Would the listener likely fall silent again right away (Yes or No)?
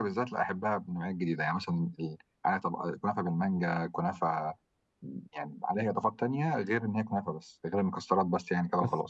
No